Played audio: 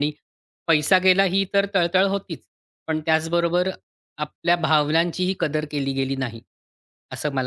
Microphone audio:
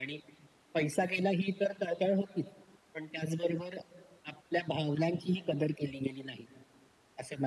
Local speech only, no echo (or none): none